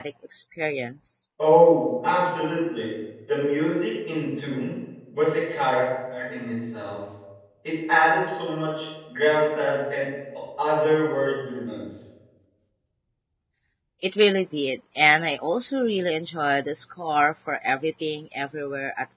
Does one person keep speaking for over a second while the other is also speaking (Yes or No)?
No